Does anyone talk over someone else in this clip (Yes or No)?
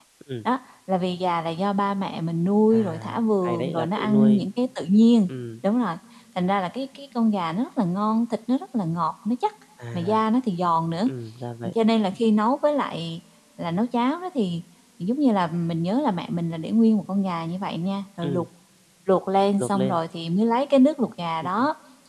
Yes